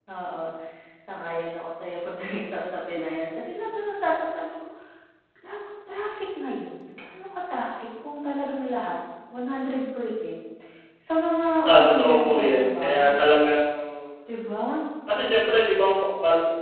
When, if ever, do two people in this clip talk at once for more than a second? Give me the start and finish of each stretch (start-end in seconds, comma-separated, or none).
11.8-13.2